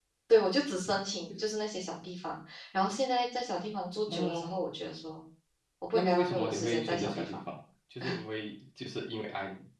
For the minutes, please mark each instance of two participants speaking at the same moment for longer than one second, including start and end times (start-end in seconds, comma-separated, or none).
5.9-7.4